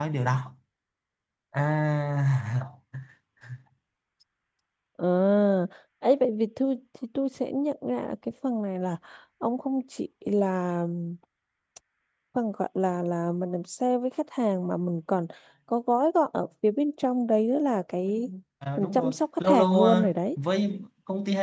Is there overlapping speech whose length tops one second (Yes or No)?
Yes